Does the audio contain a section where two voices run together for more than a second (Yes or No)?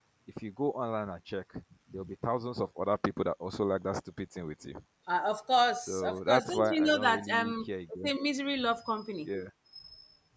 Yes